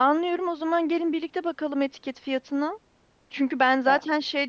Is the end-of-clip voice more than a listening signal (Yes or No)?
No